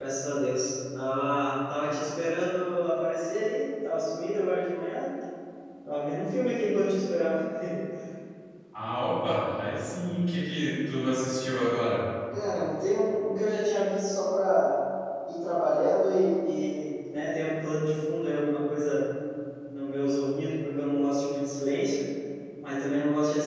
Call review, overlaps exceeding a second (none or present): none